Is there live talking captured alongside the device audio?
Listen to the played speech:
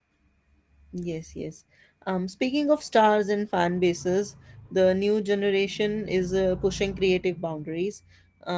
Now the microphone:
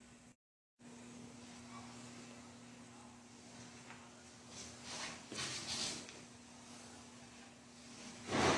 No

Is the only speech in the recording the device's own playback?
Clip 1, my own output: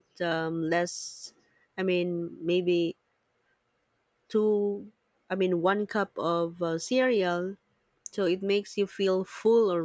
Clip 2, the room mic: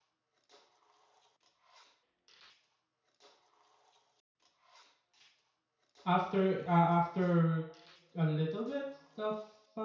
No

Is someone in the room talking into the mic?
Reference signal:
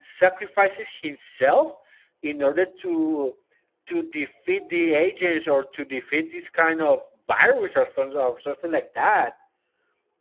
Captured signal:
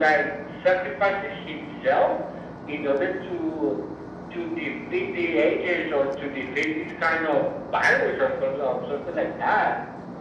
No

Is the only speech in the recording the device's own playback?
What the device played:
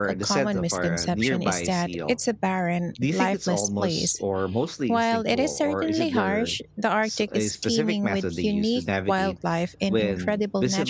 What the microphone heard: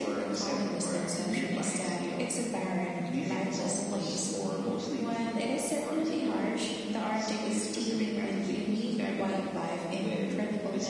Yes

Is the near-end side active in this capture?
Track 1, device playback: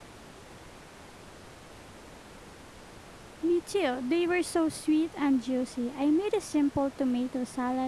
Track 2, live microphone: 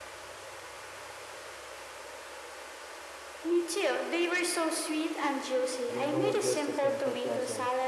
Yes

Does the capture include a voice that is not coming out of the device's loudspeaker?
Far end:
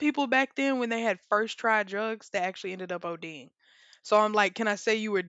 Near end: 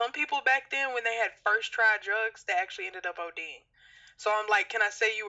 No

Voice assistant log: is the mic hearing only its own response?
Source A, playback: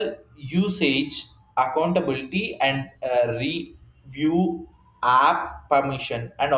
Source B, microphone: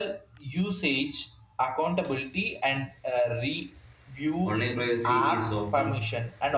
No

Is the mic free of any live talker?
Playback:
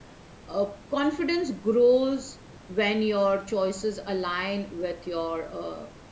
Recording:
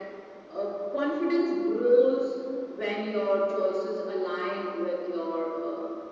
Yes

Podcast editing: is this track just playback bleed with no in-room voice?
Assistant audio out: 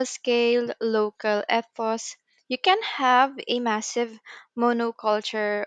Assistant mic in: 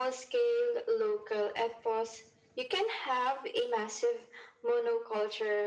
Yes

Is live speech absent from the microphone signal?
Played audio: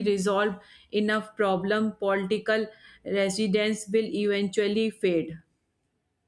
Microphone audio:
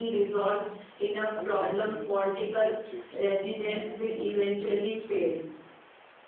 No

